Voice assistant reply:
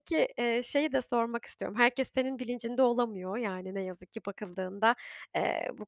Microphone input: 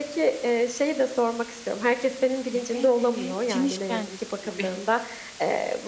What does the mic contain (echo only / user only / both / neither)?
both